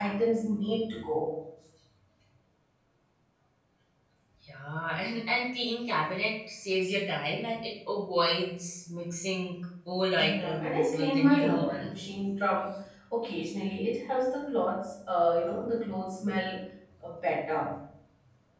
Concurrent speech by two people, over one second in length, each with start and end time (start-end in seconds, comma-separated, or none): 10.2-12.0